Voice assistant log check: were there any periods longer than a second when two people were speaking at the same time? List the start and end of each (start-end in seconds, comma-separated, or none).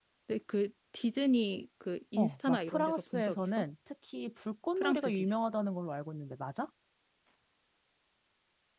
2.2-3.6